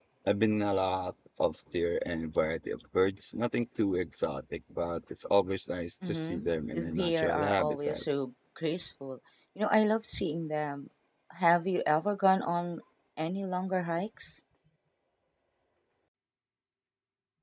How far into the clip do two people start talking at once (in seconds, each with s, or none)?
6.0 s